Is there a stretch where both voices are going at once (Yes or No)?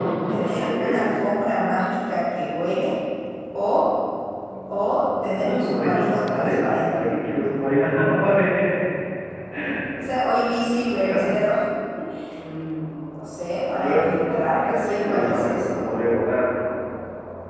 Yes